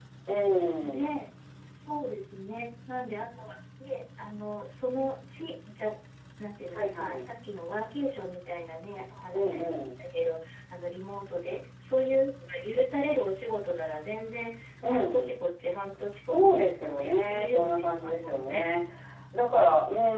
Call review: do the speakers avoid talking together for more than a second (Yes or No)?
No